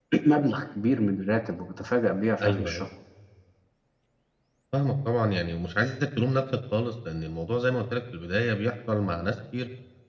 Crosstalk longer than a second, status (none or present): none